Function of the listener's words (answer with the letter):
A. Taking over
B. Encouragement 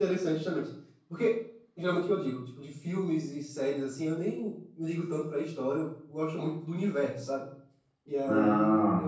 B